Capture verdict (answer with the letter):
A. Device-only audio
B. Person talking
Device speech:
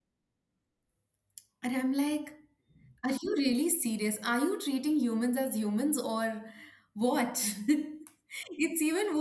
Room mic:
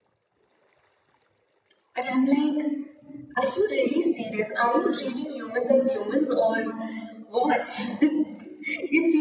A